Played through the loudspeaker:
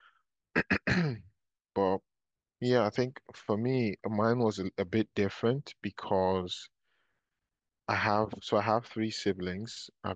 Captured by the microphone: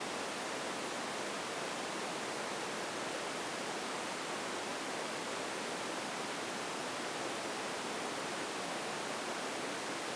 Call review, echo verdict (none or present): none